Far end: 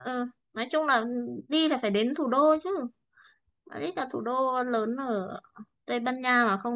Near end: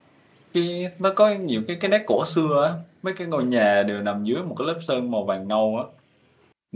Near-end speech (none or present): present